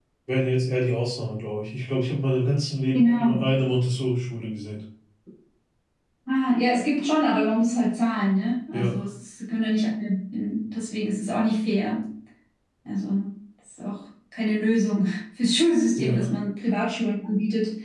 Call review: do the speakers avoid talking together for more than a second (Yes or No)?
Yes